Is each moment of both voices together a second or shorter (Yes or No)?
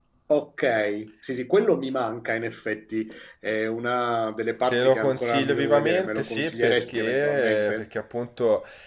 No